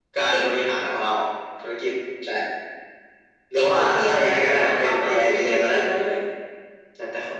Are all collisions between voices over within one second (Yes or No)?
No